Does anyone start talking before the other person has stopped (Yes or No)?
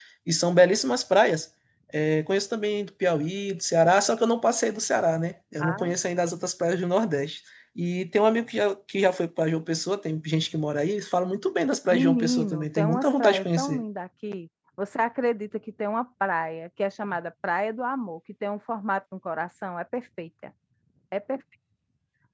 Yes